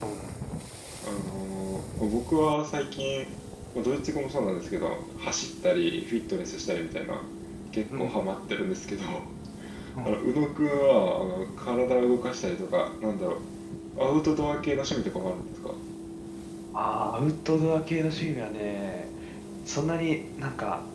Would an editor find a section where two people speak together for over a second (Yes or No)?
No